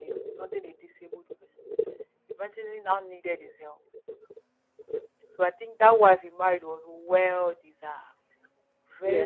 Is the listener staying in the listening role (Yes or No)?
No